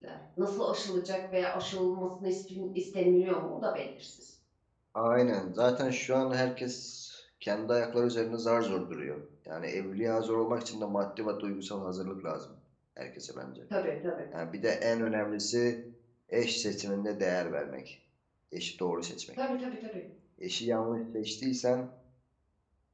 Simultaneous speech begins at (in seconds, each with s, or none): none